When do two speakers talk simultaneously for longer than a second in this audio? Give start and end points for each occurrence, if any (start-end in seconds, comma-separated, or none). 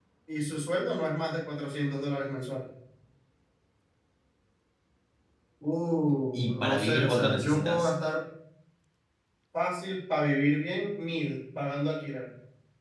6.3-7.9